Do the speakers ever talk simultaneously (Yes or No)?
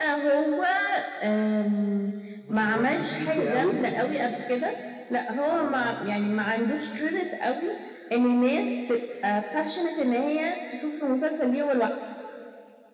Yes